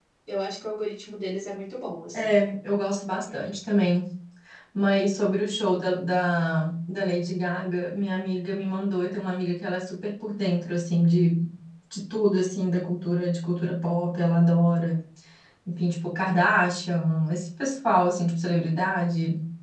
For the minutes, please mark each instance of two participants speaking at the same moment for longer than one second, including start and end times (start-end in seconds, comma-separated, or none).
none